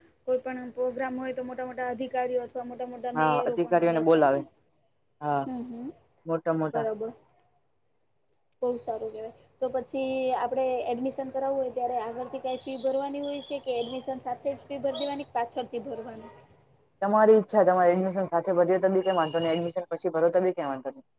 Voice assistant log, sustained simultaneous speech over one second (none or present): present